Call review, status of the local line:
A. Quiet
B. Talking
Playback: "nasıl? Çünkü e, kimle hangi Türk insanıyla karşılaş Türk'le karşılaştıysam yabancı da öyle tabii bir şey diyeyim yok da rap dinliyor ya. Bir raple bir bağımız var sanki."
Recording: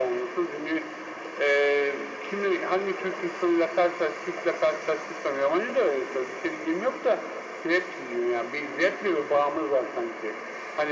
A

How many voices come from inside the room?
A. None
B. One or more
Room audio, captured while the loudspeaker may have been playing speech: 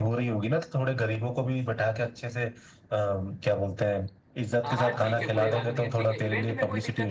B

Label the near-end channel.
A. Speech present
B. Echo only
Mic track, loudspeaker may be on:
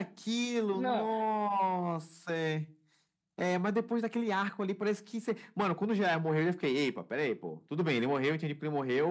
A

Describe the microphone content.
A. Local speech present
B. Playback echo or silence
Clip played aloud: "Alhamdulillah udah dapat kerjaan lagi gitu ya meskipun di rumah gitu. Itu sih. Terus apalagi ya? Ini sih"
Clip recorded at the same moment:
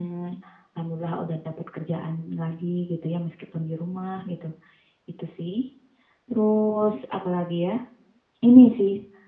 B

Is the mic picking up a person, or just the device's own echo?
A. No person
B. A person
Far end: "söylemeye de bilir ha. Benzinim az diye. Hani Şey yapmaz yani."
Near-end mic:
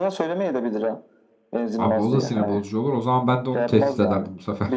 B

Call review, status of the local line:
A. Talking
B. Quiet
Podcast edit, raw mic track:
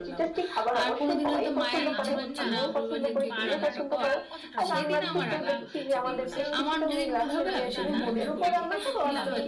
A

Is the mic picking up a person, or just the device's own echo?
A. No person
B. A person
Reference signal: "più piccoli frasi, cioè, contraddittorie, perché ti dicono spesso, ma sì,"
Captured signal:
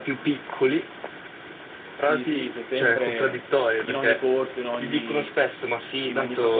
B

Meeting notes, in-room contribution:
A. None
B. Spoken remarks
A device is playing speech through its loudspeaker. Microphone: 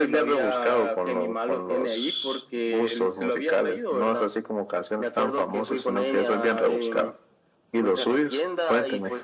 A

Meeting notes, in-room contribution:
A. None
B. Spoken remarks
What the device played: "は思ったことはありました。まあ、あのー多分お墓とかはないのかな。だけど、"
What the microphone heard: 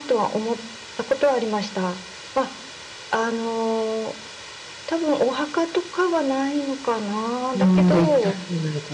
B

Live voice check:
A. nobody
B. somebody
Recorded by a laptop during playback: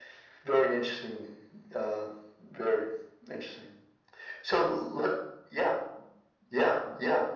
A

